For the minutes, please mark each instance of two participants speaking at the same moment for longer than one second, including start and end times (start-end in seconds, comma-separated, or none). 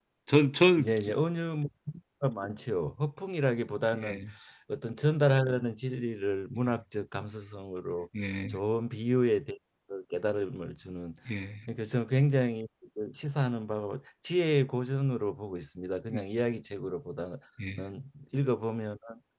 none